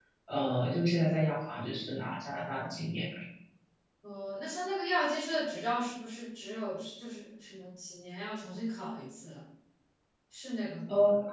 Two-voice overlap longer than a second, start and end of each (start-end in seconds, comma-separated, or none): none